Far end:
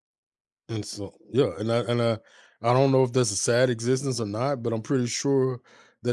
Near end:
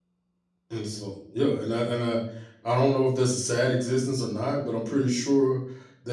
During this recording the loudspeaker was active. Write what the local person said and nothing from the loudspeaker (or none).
none